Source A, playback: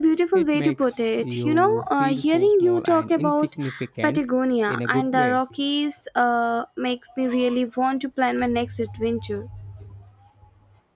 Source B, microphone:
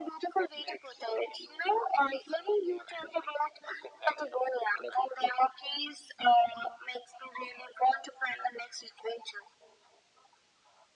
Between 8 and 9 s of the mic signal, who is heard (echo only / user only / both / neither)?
echo only